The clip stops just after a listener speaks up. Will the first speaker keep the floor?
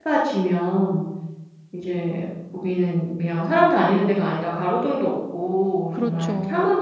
Yes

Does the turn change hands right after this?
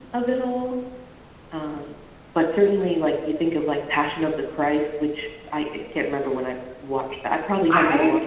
Yes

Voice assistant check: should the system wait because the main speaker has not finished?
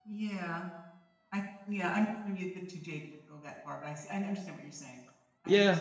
No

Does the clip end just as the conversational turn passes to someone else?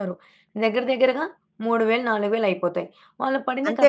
No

